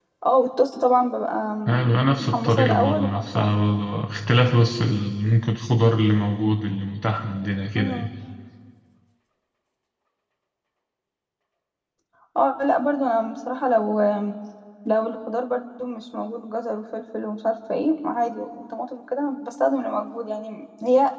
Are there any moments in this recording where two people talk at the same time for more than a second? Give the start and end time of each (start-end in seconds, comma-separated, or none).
2.2-3.5